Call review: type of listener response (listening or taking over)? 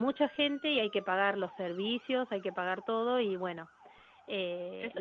taking over